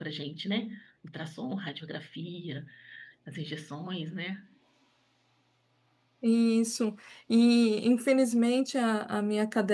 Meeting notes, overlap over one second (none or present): none